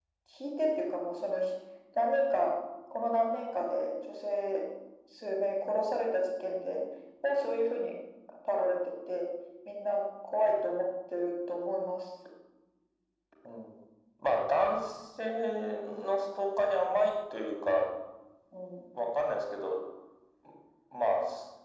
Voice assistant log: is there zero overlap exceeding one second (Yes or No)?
Yes